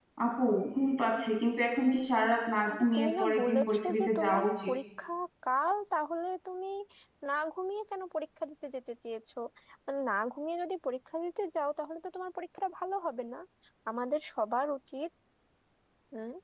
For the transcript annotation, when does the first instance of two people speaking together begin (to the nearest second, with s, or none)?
3 s